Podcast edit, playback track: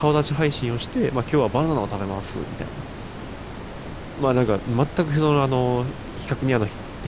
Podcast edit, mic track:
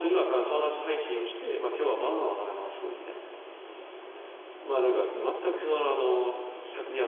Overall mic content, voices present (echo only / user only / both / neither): echo only